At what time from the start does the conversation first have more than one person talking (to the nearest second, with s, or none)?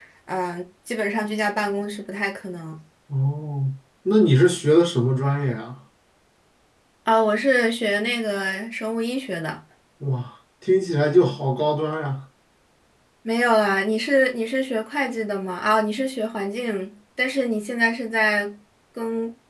none